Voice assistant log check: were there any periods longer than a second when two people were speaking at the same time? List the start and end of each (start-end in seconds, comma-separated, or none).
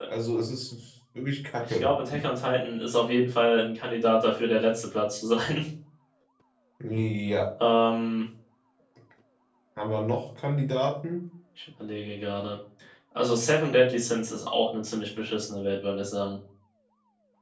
none